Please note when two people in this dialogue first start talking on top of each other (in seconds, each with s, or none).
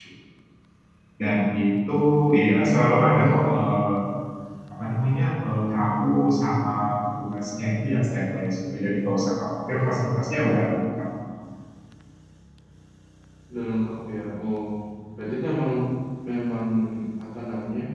2.5 s